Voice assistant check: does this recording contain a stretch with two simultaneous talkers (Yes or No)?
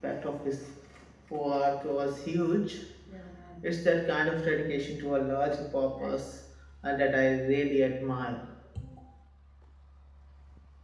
No